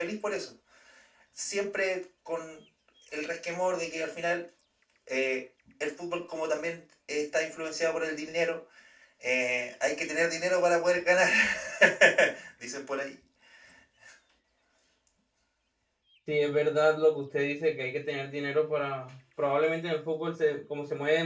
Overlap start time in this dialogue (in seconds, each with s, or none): none